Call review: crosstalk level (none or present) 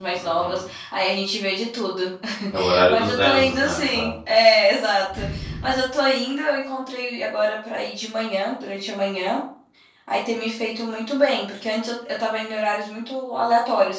present